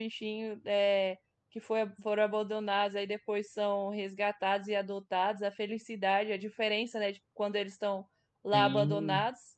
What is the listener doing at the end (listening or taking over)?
listening